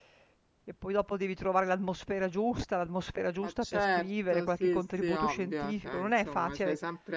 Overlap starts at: 3 s

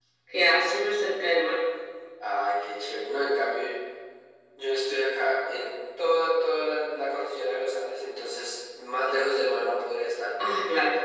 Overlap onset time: none

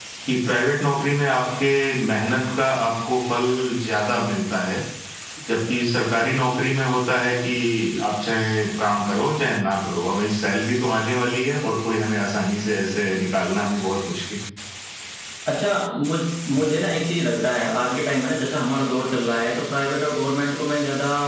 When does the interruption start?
none

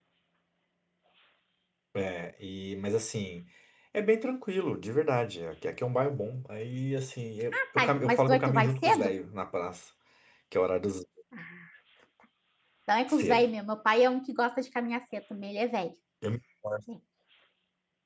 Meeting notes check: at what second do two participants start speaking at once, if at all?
8 s

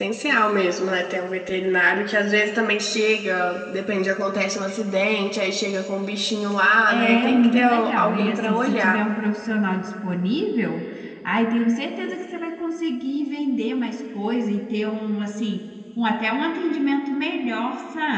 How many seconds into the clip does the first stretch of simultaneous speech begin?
7 s

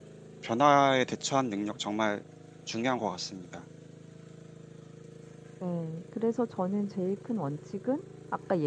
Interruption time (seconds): none

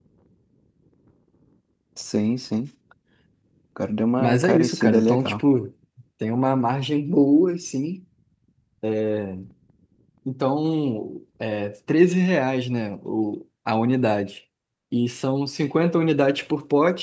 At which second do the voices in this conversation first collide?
4 s

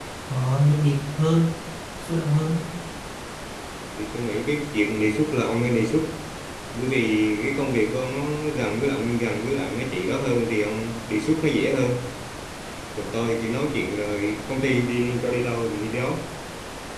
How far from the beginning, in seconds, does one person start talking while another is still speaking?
none

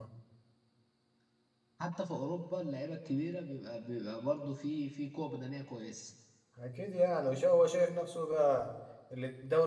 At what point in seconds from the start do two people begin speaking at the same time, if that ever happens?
none

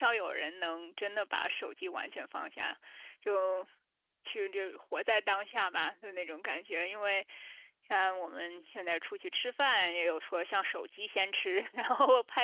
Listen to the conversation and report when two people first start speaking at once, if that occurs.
none

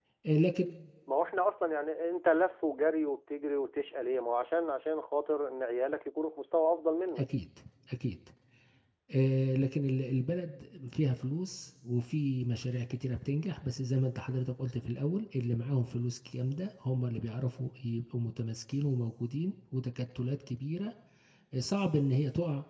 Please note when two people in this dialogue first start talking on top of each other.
none

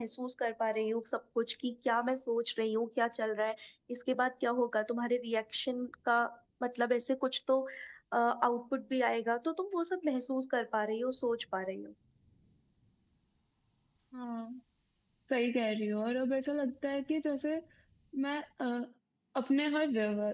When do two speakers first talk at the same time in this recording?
none

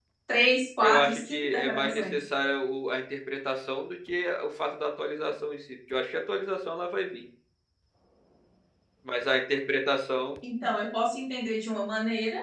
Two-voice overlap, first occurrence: 1 s

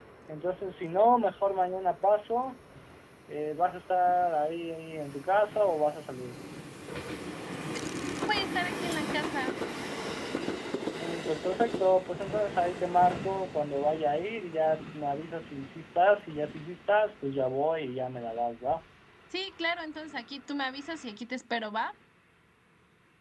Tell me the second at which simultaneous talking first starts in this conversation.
none

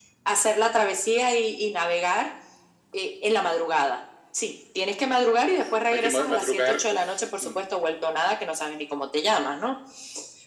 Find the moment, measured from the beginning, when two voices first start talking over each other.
5 s

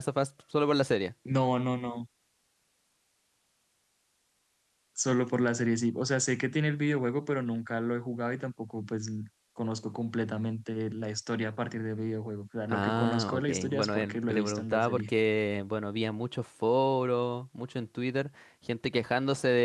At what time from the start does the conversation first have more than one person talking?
13 s

